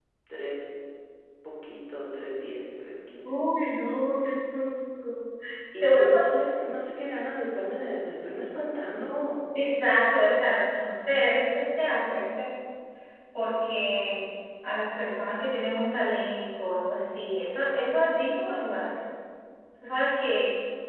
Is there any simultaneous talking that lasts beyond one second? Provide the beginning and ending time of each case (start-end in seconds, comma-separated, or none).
none